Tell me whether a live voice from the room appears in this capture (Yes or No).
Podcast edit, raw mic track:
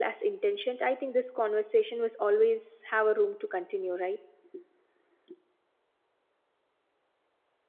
Yes